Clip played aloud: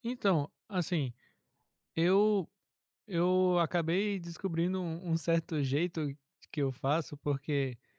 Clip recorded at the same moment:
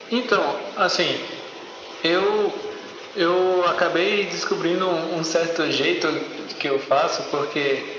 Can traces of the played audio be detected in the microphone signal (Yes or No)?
Yes